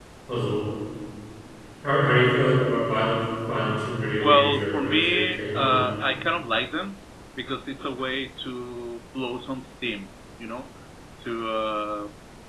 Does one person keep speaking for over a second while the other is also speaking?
Yes, from 4.2 s

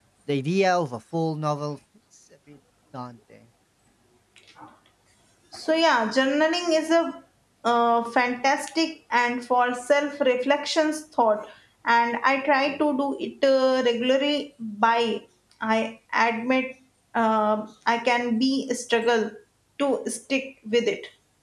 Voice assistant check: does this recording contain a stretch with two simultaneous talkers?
No

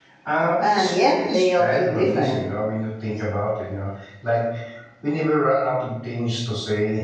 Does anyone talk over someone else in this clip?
Yes, from 0.6 s

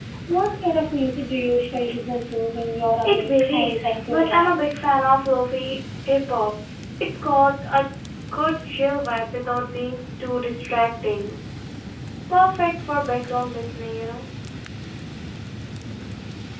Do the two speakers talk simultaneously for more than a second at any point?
Yes, from 3.0 s

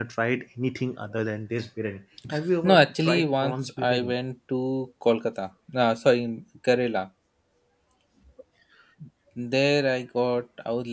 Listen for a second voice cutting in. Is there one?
Yes, from 2.7 s

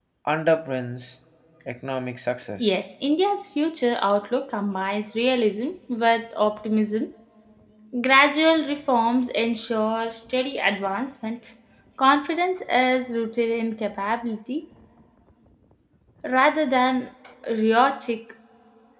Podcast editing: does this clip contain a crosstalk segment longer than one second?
No

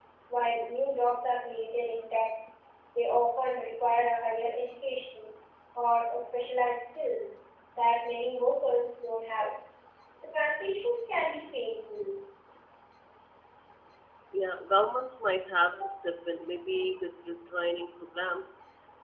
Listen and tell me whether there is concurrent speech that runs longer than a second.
No

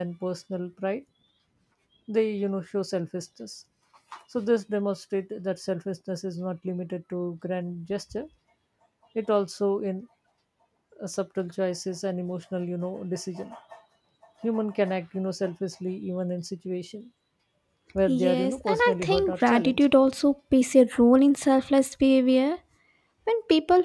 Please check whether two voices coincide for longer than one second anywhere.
Yes, from 18.1 s

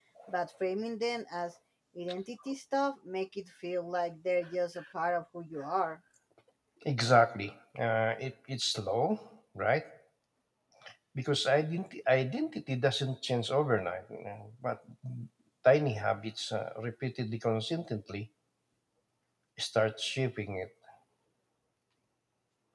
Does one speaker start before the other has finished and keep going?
No

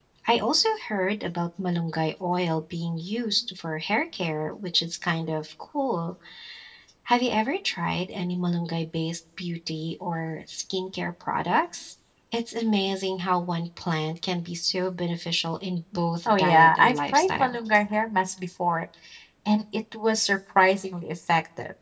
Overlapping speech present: Yes, from 16.2 s

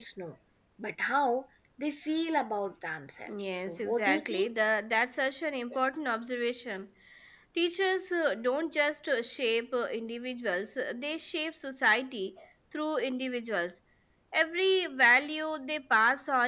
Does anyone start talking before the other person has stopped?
Yes, from 3.2 s

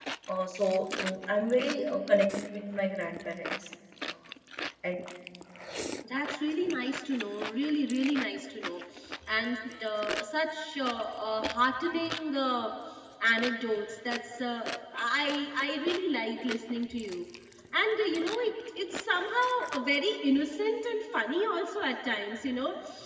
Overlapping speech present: No

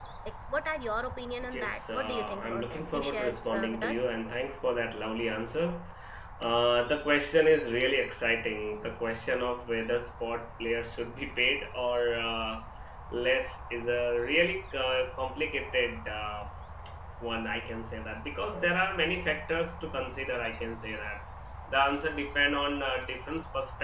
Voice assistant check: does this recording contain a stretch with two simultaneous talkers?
Yes, from 1.4 s

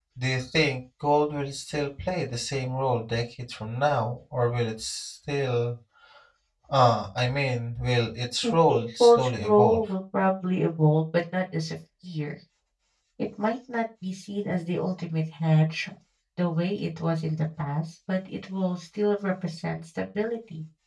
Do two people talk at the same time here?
Yes, from 8.4 s

